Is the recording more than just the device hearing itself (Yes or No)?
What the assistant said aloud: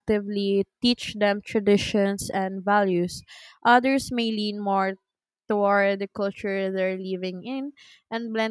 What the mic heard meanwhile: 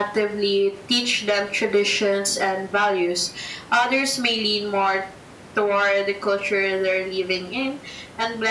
No